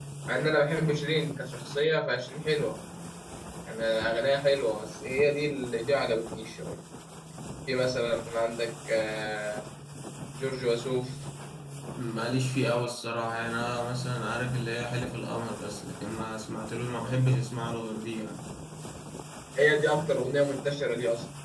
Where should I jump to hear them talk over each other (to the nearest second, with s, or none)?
none